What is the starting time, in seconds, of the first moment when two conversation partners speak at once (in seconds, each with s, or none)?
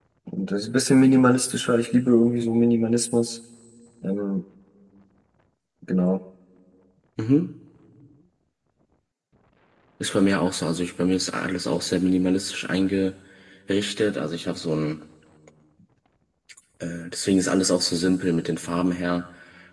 none